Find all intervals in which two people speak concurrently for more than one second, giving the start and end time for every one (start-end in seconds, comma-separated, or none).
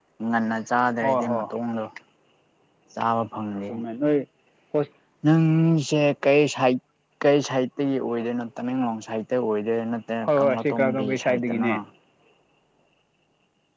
10.2-11.7